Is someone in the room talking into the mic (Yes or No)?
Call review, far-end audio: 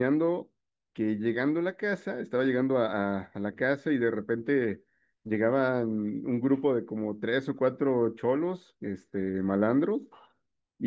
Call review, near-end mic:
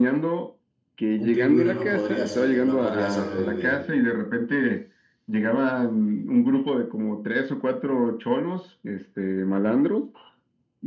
Yes